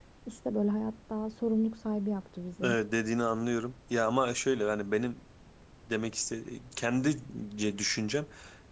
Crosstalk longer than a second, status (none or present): none